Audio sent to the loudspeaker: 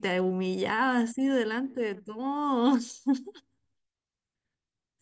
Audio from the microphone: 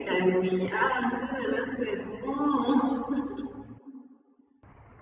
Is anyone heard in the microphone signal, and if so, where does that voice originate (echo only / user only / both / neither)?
echo only